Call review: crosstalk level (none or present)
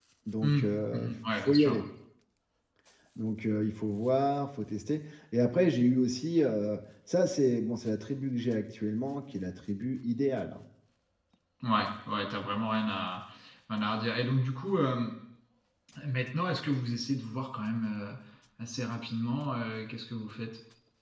present